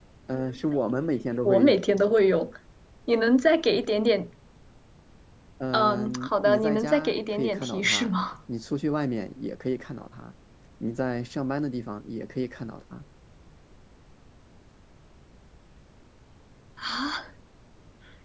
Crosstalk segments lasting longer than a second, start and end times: 5.7-8.2

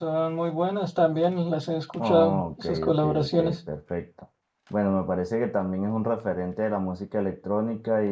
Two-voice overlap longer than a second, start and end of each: 2.0-3.6

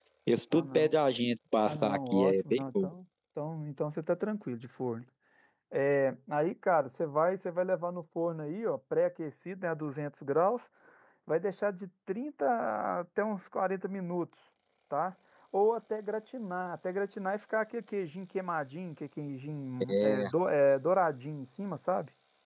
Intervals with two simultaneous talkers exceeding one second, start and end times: 1.6-2.9

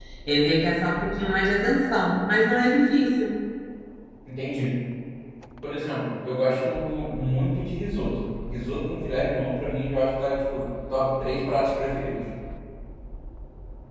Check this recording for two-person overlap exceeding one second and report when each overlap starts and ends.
none

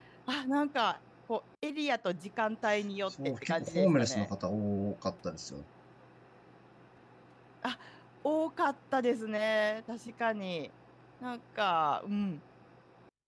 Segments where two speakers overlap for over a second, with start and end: 3.1-4.3

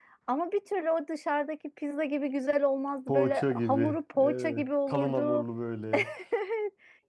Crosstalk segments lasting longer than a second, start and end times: 3.1-5.4

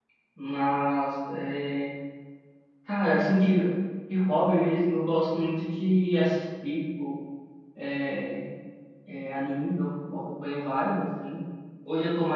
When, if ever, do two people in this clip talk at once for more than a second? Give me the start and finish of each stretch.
none

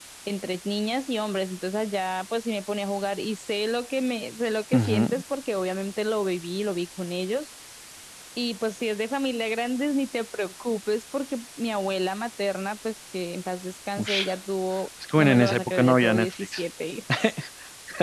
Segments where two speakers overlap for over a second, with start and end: 15.2-16.6

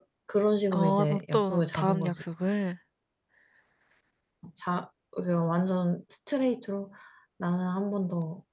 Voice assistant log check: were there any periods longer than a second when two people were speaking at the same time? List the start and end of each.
0.7-2.2

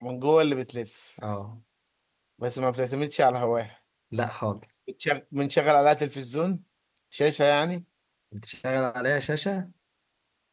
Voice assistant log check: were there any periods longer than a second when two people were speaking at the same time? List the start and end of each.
none

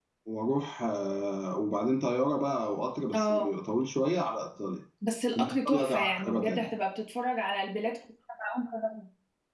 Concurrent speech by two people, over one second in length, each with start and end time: 5.4-6.7

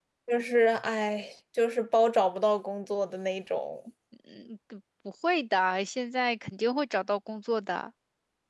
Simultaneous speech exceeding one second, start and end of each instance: none

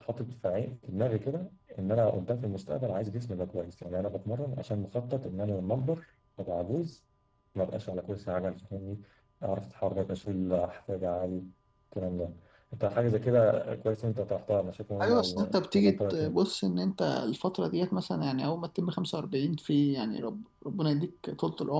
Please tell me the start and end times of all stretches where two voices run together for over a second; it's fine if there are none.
15.0-16.3

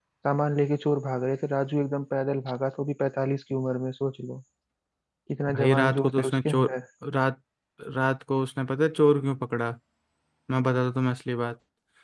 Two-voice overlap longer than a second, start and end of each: 5.5-6.7

